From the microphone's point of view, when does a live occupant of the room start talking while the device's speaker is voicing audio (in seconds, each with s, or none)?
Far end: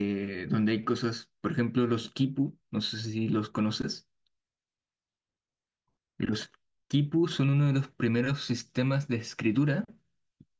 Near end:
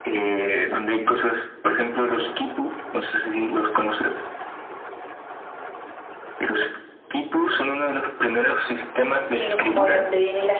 9.3 s